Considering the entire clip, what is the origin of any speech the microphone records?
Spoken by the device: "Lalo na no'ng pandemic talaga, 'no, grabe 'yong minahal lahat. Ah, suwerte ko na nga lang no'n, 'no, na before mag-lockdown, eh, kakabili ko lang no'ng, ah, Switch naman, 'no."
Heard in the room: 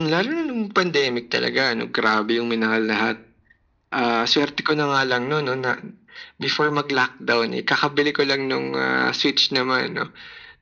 echo only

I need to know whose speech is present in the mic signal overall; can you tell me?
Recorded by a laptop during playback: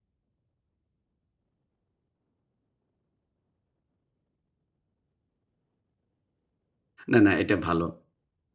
user only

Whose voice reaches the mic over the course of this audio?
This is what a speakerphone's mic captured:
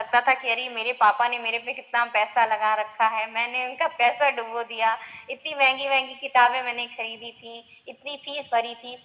echo only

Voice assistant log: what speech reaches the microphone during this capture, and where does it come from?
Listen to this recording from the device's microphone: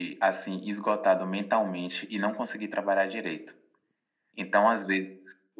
echo only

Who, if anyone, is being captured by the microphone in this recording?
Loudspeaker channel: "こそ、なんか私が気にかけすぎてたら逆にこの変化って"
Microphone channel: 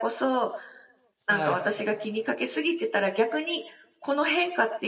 both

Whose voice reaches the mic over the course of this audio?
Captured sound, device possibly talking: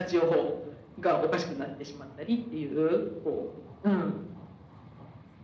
echo only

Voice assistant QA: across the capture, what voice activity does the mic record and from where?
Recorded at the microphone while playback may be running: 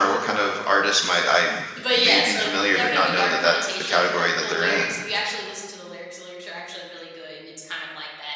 both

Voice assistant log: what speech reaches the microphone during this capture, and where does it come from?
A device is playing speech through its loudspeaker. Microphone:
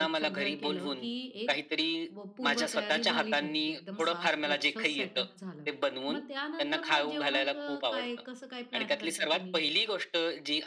both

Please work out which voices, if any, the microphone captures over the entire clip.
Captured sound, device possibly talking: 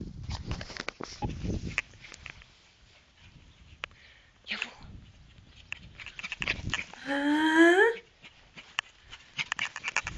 user only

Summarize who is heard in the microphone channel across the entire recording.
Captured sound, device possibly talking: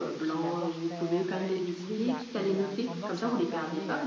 both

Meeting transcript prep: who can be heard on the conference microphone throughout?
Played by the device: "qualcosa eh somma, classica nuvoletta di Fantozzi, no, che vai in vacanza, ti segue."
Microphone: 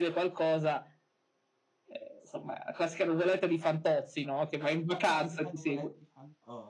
both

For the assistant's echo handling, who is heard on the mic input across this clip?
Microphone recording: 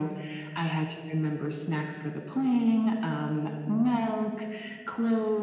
echo only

